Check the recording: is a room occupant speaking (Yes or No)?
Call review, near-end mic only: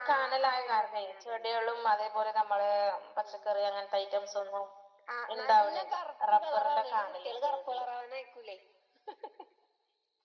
No